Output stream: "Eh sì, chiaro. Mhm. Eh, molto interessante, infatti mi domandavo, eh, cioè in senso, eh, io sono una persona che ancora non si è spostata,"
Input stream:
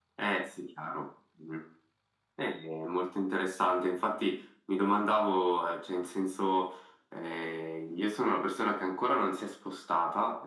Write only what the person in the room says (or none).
none